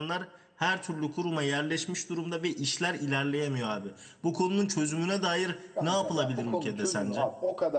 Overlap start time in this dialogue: 5.8 s

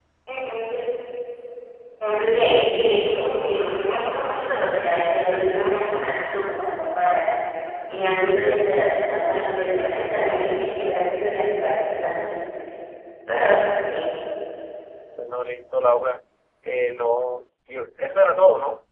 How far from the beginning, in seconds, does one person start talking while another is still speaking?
none

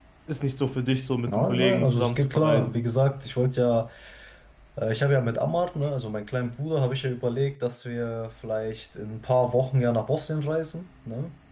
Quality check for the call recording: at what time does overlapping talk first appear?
1.3 s

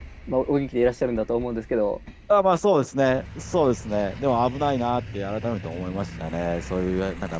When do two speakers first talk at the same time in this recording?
none

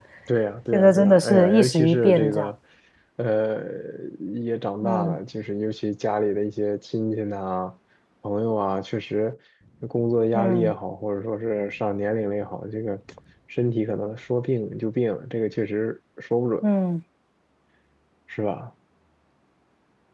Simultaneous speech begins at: 0.7 s

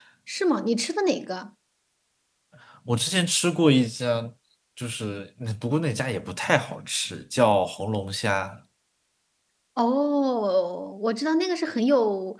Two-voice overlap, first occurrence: none

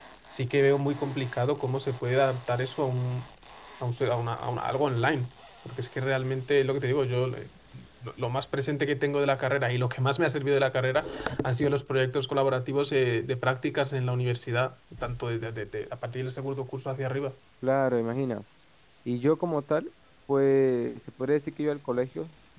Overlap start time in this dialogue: none

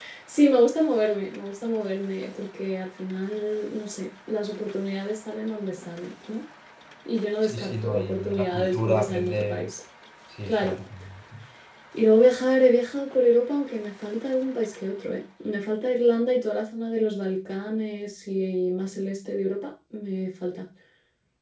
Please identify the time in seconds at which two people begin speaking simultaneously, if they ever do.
7.4 s

